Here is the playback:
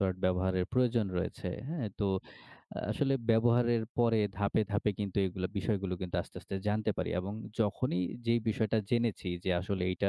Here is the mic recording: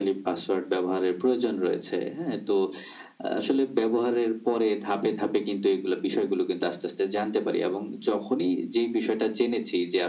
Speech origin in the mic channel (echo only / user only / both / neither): echo only